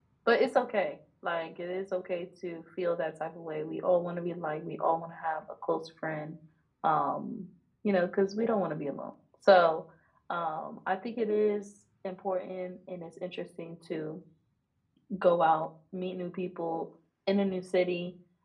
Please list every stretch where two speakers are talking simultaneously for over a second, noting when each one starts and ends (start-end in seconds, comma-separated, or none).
none